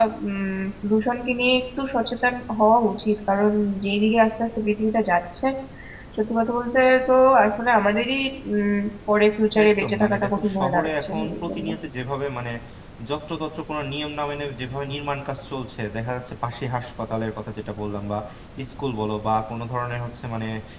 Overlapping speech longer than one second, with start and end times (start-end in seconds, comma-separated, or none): 9.6-11.7